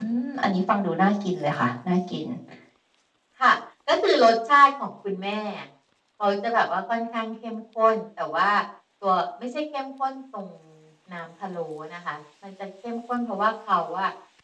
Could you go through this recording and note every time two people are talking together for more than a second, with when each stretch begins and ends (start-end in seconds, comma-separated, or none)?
none